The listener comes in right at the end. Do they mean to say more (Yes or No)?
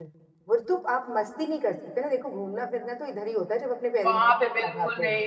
Yes